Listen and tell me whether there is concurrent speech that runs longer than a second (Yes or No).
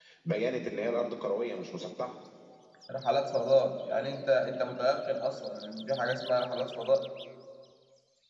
No